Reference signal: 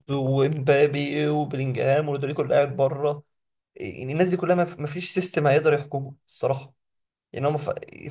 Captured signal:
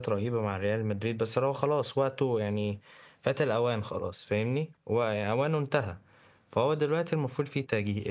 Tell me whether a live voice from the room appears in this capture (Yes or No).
Yes